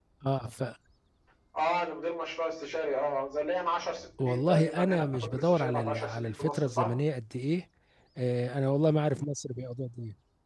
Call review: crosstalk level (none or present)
present